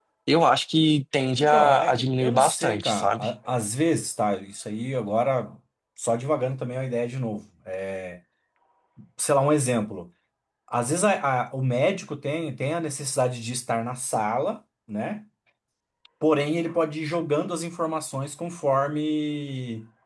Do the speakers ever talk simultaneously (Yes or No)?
Yes